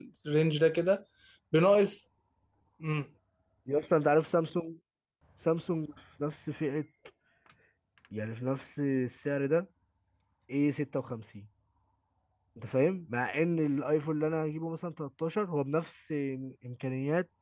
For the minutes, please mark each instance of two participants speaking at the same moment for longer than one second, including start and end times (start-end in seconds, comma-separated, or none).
none